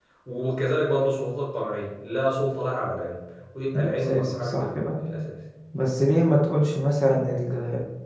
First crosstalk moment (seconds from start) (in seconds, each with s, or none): 3.8 s